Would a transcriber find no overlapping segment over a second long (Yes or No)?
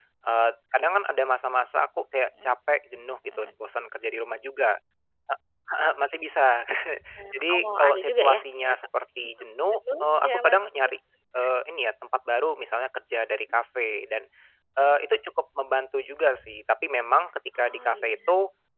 No